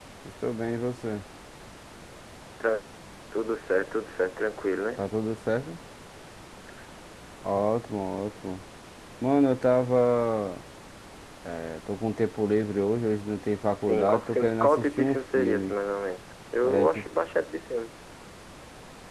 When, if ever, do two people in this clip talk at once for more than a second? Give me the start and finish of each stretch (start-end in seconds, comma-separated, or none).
13.8-15.8